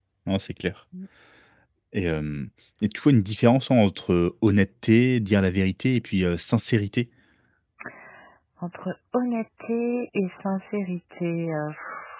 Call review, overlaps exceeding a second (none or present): none